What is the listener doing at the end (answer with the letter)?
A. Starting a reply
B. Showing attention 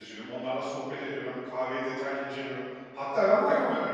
B